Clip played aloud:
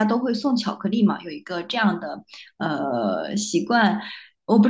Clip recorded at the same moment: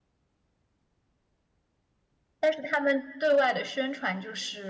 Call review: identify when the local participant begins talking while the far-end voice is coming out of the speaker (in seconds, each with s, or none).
2.4 s